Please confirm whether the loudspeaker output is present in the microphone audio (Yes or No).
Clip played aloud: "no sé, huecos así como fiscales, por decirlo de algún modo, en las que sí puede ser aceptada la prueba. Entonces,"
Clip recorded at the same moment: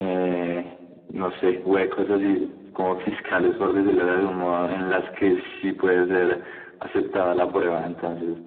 Yes